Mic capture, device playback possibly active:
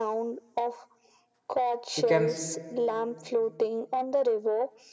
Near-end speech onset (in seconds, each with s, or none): 2.0 s